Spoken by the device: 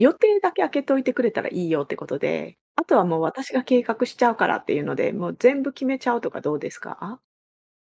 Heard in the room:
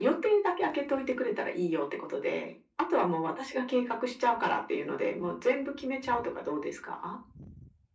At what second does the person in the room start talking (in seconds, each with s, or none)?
none